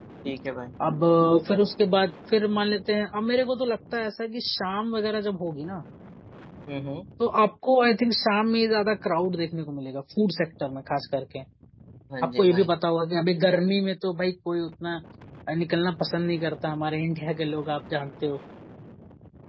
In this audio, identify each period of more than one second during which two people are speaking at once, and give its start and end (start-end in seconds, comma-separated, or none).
none